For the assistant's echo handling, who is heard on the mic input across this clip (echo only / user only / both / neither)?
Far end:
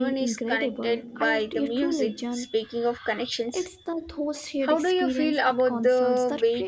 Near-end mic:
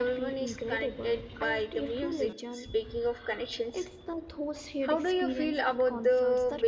echo only